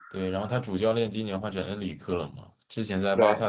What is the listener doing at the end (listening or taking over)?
listening